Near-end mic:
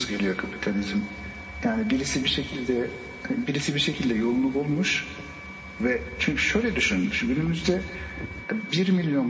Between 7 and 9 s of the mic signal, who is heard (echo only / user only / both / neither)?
echo only